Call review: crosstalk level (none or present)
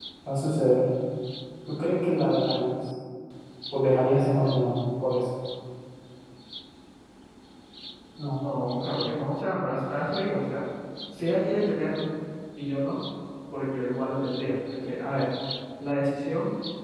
none